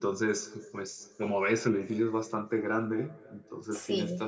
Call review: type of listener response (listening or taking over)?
listening